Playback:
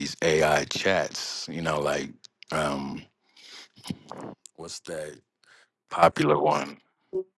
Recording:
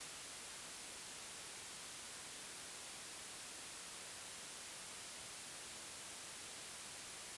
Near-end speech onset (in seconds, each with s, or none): none